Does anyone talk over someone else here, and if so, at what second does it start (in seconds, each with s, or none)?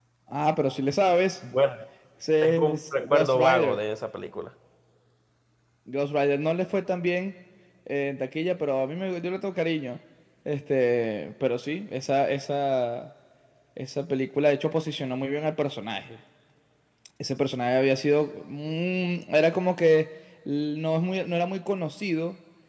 2.4 s